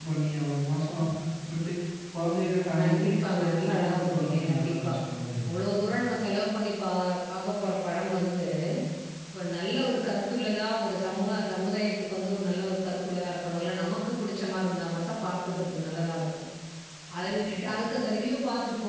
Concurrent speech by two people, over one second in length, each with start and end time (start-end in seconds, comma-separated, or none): 2.8-4.9